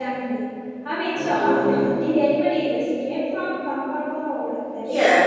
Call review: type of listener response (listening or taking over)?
taking over